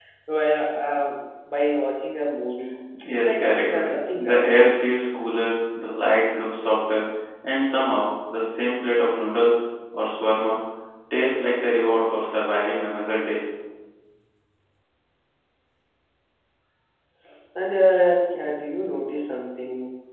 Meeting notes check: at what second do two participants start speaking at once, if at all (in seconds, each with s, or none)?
3.0 s